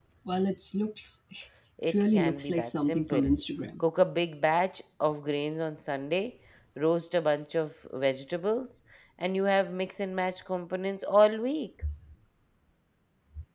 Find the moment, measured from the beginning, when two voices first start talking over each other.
2 s

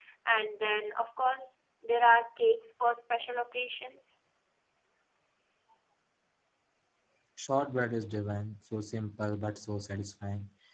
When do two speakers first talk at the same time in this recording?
none

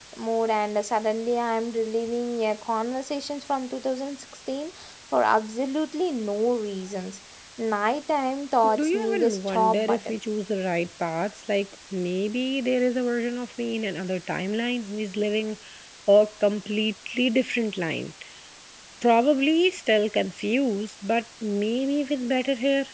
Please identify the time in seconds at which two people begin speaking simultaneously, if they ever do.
9 s

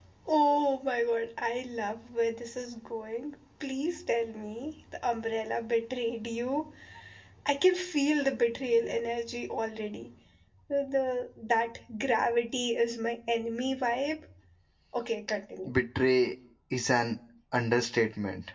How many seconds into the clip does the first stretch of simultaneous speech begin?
none

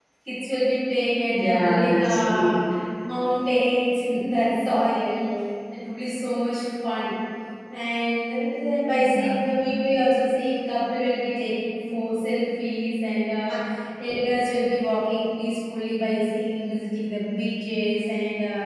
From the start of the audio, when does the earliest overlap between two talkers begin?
1 s

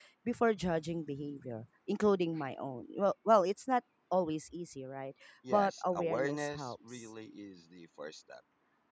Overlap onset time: 5 s

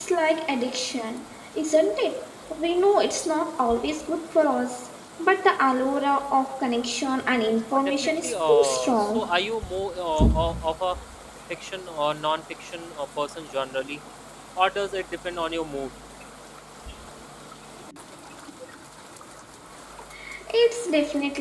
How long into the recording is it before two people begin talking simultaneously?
8 s

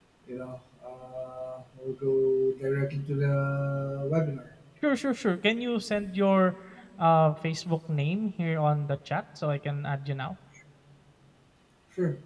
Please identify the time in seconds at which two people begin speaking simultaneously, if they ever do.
none

